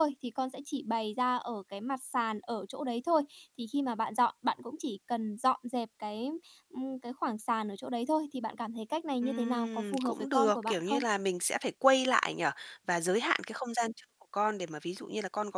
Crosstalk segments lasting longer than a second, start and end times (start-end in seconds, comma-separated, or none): 9.2-11.0